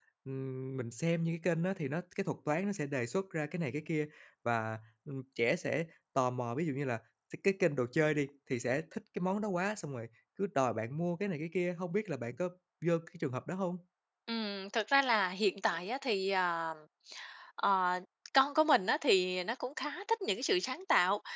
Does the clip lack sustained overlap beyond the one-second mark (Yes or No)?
Yes